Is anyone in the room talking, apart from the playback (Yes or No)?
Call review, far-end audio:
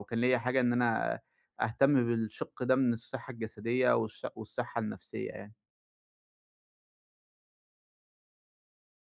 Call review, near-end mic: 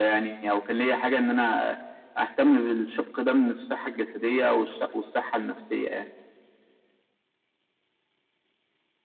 No